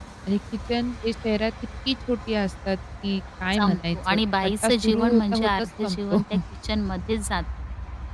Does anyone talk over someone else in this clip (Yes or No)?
Yes